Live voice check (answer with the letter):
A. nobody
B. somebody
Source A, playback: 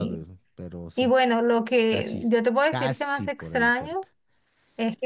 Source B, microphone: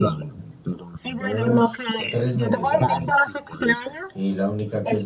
B